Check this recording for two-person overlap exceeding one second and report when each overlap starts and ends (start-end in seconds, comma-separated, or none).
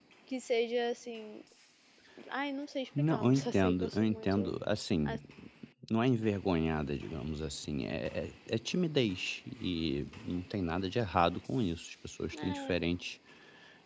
3.0-4.5